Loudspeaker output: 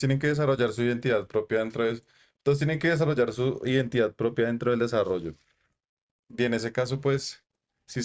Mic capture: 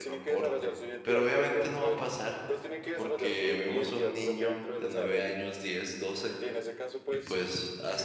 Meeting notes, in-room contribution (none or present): present